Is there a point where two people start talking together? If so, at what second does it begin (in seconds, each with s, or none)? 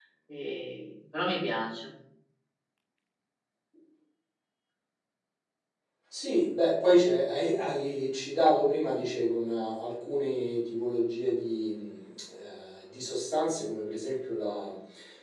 none